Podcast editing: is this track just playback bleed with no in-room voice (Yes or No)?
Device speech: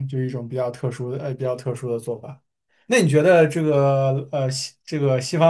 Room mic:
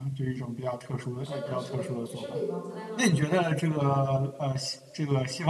No